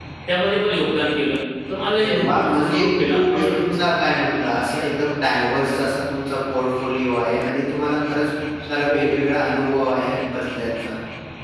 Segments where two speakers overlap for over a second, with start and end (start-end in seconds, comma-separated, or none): 1.9-3.4